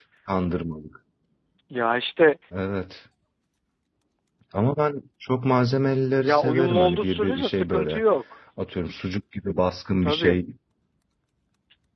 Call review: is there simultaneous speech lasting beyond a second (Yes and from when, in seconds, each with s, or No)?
Yes, from 6.2 s